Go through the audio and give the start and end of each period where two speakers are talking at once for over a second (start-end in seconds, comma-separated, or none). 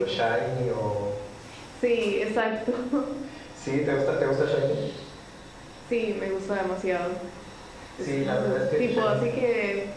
8.0-9.2